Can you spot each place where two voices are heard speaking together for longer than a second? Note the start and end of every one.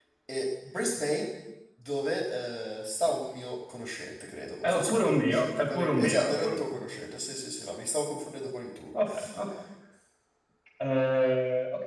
4.6-6.8

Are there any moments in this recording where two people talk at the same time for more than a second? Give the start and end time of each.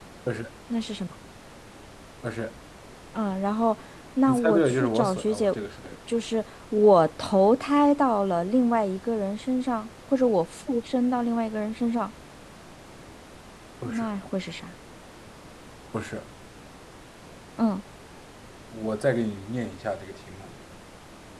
4.3-5.5

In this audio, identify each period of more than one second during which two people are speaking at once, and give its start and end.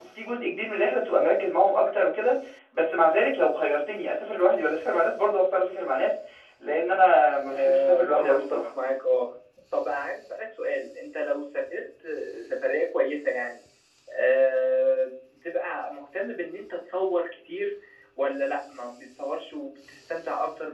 7.5-8.7

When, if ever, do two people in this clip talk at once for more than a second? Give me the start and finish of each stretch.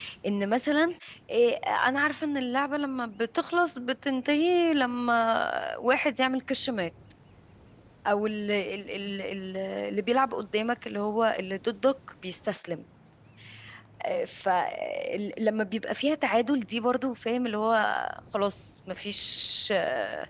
none

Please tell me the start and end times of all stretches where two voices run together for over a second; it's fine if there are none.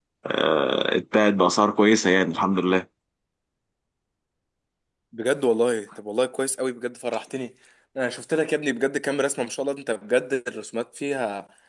none

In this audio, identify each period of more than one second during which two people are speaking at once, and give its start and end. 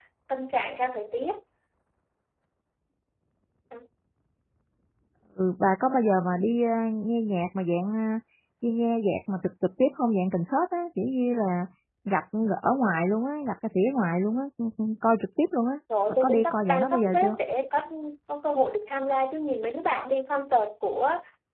16.1-17.4

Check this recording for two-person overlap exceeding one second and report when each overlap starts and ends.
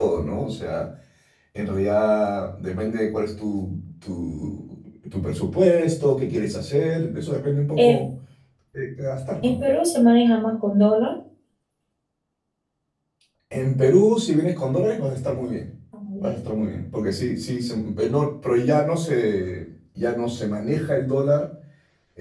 none

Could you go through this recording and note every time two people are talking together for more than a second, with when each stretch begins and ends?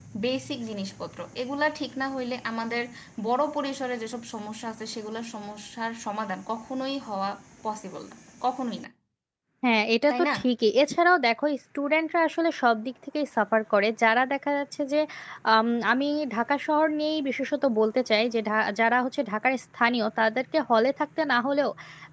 none

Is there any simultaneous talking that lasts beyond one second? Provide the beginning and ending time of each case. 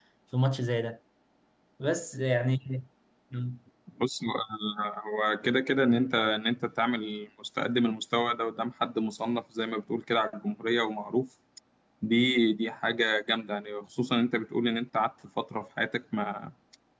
none

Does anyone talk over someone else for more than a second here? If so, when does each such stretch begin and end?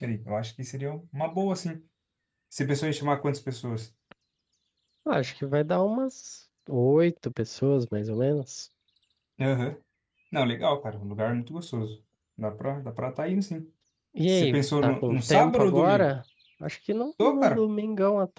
14.3-16.1

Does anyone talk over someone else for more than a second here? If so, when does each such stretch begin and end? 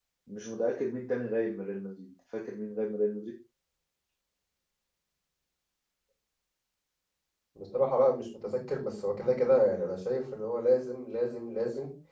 none

